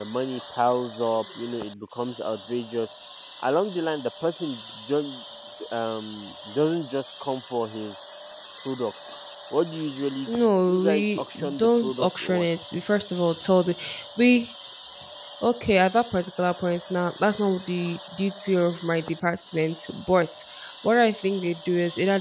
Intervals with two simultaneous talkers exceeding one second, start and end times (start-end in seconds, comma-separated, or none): 10.3-12.5